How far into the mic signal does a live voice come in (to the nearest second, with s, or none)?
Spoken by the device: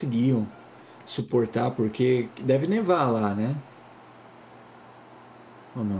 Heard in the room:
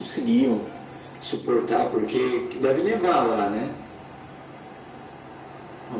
none